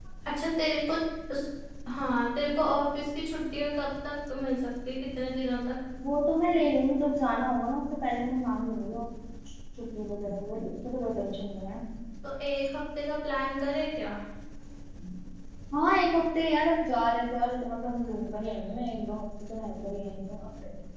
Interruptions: none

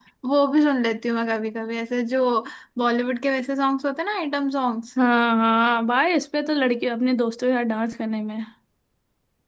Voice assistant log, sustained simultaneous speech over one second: none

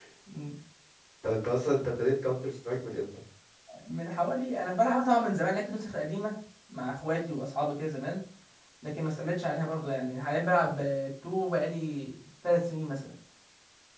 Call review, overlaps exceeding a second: none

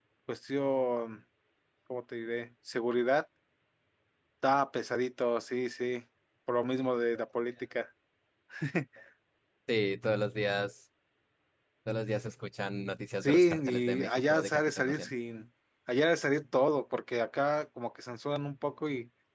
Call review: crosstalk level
present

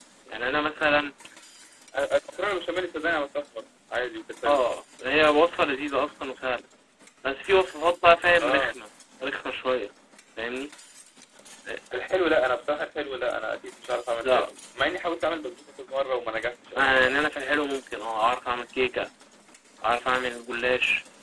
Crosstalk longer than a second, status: none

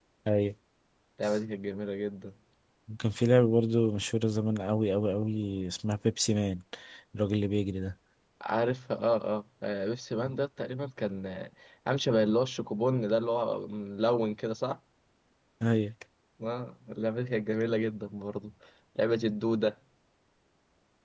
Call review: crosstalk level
none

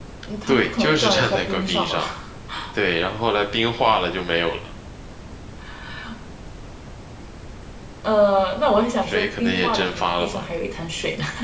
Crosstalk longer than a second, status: present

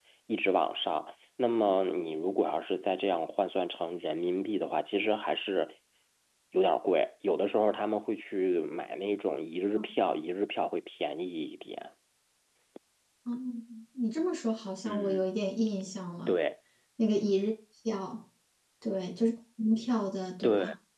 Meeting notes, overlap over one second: none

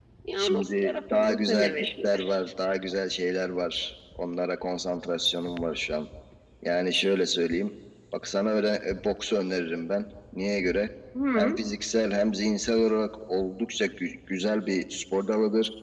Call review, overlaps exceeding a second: present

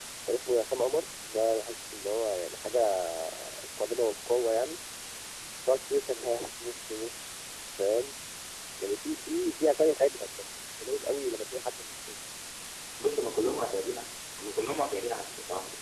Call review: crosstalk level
none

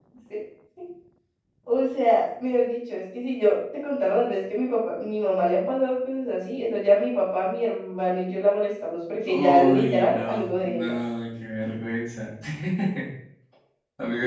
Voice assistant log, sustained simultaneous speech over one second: present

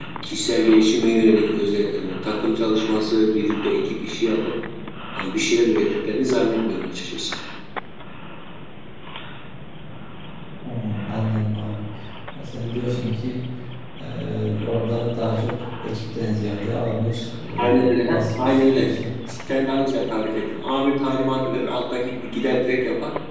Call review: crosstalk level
present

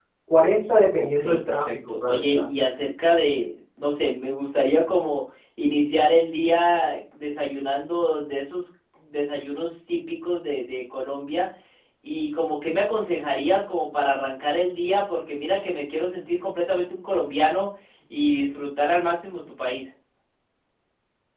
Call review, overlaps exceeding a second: present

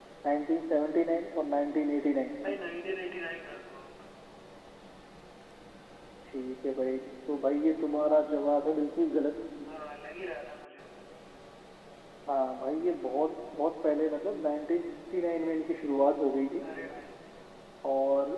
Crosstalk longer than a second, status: none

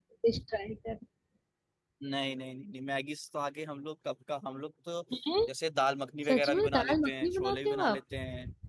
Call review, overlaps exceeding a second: present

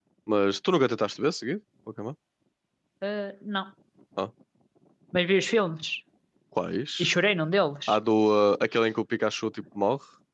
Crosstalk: none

